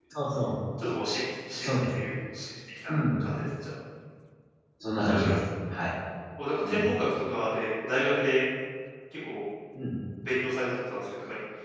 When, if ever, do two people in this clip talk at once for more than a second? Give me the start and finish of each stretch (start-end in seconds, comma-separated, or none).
none